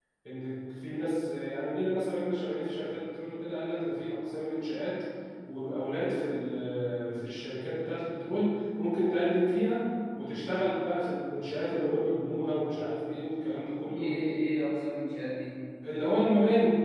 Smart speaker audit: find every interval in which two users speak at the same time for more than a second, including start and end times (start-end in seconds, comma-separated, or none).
none